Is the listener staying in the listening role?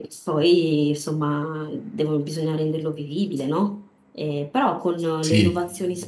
Yes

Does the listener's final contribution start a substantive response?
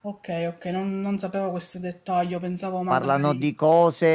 Yes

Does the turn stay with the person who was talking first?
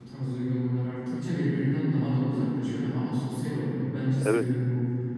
No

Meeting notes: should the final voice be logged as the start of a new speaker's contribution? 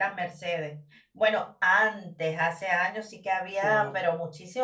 No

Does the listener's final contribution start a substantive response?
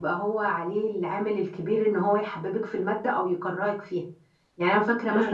No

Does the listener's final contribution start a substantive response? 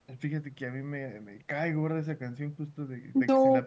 No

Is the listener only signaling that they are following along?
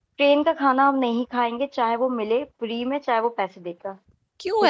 No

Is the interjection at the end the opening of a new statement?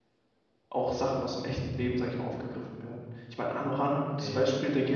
No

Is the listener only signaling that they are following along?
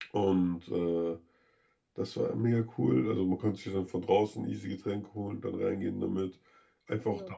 Yes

